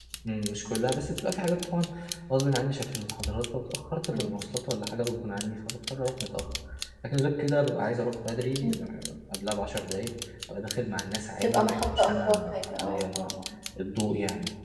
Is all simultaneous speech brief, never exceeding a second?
No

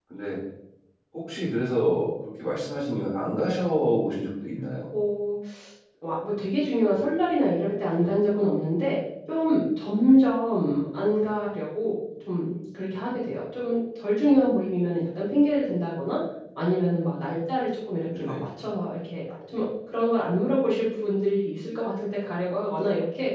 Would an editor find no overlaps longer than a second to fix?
Yes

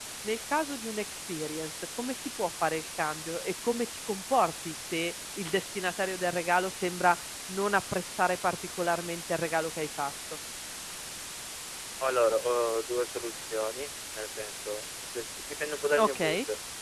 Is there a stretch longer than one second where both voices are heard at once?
No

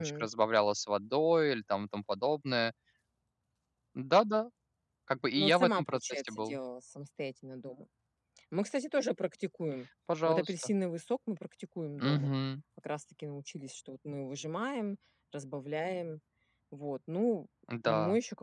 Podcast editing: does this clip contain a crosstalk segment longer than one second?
Yes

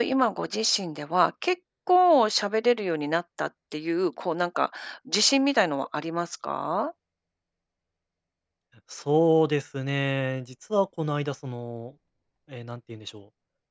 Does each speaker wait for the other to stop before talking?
Yes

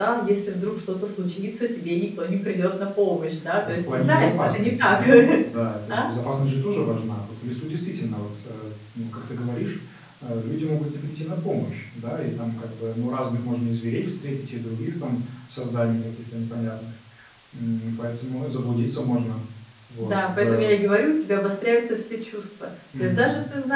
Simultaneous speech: Yes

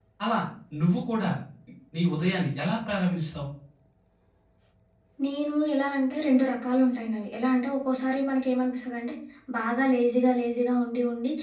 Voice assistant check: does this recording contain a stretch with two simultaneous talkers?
No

